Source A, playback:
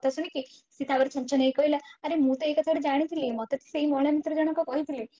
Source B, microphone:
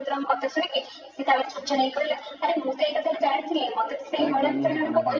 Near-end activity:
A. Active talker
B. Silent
A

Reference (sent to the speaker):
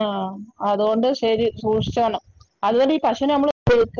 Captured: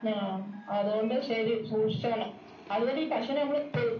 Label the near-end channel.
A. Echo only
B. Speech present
A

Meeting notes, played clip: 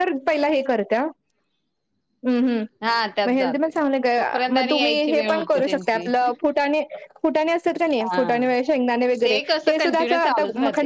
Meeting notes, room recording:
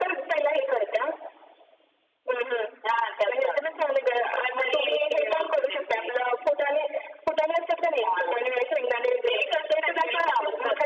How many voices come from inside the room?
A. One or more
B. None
B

